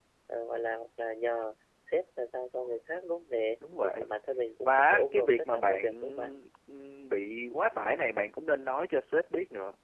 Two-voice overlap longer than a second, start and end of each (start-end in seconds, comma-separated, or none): 4.6-6.3